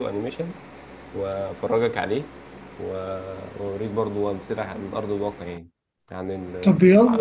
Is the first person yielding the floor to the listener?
Yes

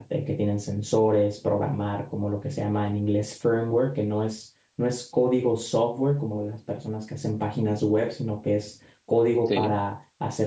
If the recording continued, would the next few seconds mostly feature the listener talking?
No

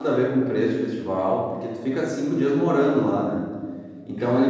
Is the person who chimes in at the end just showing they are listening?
Yes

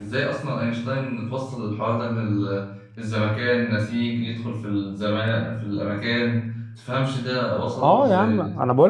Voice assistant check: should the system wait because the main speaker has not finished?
No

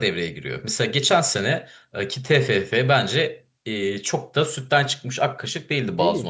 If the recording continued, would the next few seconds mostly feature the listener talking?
Yes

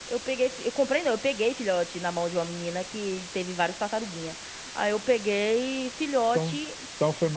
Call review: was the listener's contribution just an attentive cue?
No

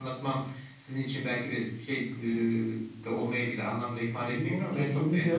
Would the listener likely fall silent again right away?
No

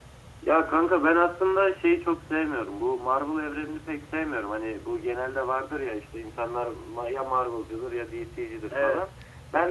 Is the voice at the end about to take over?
No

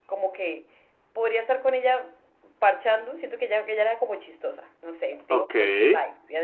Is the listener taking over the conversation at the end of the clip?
No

